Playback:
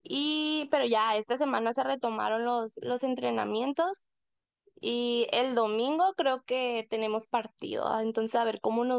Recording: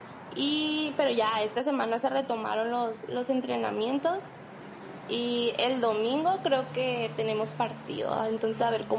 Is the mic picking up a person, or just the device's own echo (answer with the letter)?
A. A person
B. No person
B